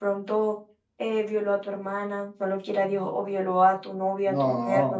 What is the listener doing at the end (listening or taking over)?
taking over